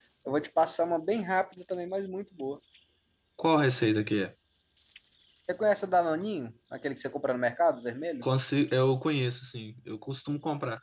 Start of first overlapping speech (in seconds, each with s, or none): none